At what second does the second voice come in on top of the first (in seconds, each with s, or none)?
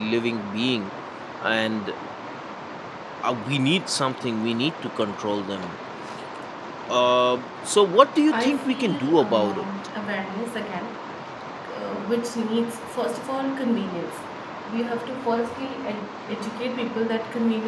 8.3 s